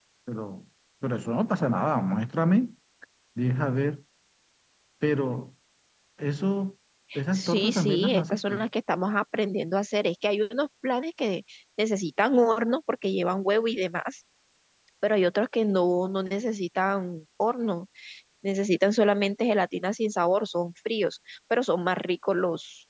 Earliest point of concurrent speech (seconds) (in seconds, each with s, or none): 7.1 s